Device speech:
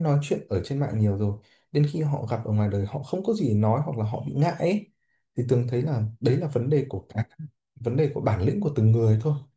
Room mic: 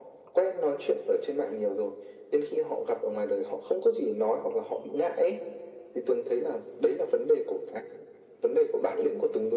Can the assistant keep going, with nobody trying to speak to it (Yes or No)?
Yes